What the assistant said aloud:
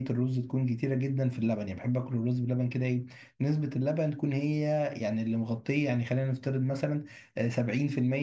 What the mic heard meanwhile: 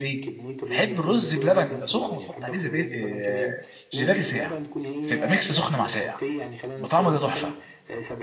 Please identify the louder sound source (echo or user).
user